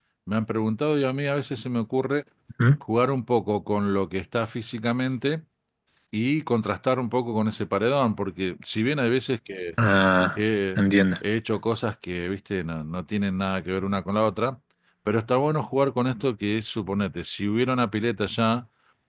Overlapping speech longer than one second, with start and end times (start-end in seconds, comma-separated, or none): none